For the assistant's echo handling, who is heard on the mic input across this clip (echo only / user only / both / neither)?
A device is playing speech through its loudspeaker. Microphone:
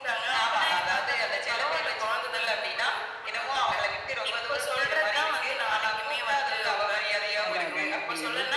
both